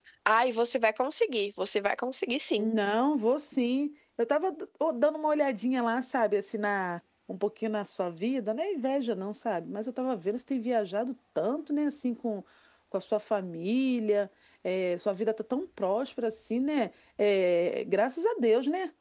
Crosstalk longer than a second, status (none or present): none